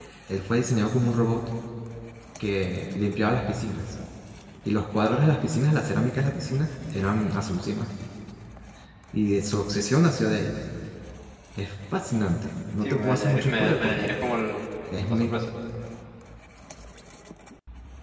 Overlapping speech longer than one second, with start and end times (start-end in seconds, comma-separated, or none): 12.8-14.1